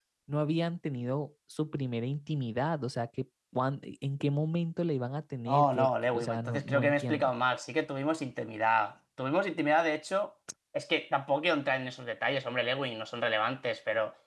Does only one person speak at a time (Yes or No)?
No